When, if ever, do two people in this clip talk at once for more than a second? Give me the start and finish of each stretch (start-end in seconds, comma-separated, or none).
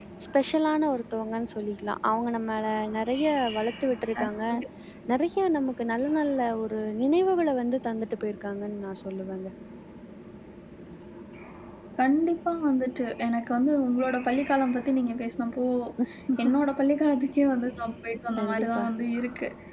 none